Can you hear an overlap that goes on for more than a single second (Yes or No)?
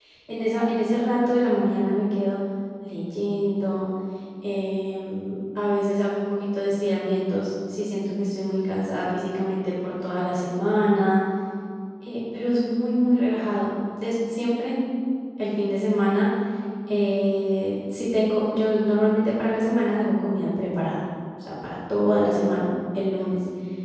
No